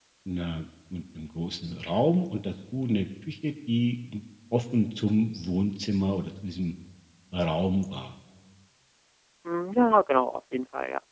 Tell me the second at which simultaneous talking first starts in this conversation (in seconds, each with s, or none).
none